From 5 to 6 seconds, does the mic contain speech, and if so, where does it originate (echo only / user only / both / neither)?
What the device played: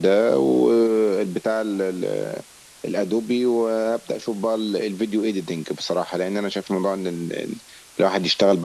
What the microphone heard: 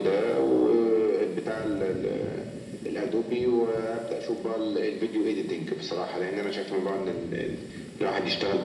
echo only